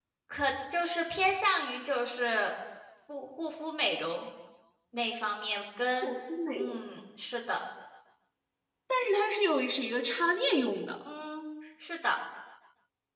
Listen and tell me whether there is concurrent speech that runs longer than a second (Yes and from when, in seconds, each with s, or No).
No